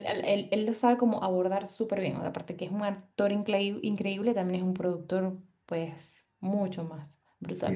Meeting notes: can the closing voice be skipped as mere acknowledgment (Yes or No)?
No